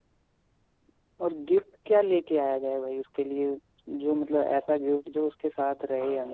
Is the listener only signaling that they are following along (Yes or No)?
No